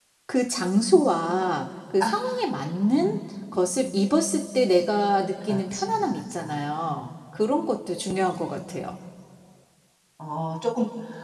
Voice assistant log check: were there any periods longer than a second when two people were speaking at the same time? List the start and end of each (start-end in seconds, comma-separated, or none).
5.4-6.9